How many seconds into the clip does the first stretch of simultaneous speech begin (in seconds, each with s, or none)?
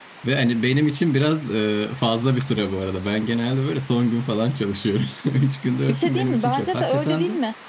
5.9 s